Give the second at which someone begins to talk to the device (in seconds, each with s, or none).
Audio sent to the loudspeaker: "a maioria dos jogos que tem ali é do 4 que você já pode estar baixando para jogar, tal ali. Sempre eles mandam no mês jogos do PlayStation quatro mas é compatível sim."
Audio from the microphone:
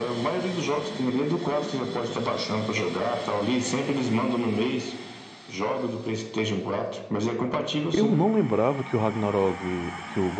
7.9 s